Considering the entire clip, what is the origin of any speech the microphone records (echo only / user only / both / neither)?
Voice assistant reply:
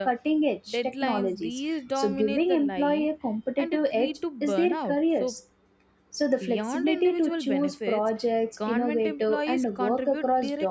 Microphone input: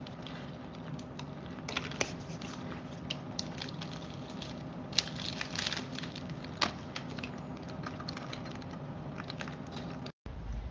neither